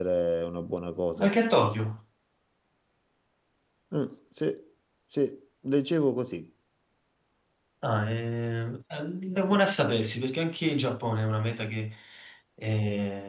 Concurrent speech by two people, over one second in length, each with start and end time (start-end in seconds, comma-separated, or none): none